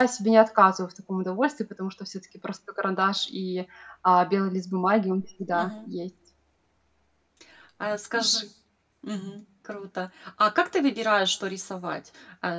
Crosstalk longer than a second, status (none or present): none